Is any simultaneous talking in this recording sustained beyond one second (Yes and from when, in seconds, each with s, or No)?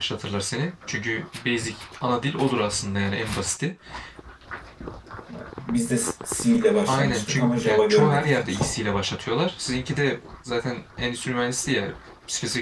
Yes, from 6.9 s